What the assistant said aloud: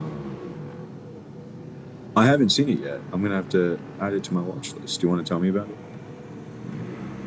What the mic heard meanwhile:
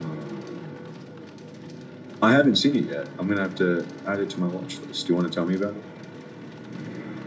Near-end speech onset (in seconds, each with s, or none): none